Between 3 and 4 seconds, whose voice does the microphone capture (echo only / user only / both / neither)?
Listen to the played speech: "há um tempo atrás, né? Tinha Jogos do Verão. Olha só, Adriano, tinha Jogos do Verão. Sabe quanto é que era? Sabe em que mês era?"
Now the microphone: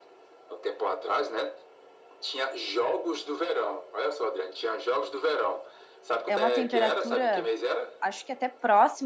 echo only